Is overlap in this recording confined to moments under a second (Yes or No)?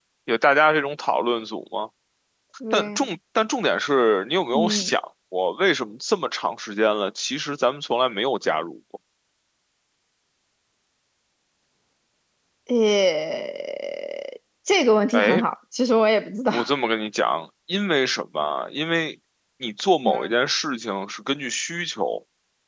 Yes